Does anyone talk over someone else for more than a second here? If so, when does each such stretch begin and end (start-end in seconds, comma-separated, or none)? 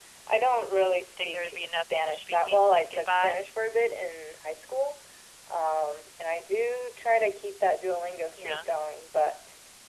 1.2-3.4